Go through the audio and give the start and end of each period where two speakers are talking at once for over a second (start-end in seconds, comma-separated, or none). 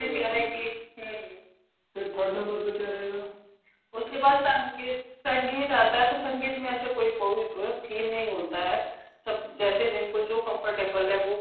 none